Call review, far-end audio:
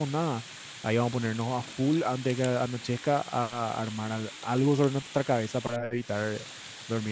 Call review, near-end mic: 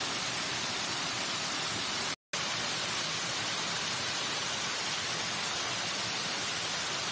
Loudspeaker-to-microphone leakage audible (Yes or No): No